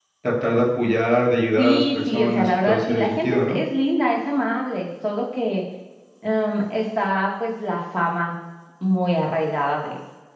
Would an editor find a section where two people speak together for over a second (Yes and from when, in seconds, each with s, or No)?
Yes, from 1.6 s